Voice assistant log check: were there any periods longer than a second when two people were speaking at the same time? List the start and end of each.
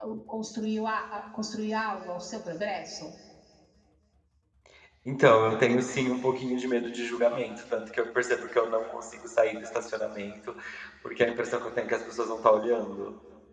none

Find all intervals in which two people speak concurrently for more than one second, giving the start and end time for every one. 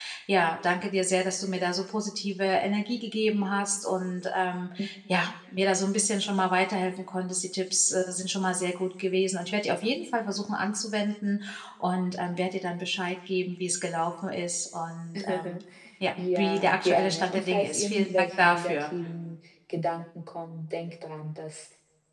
16.4-18.8

